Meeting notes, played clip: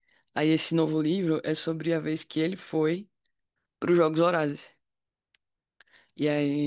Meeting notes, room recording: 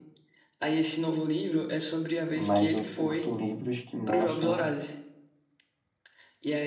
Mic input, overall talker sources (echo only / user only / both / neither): both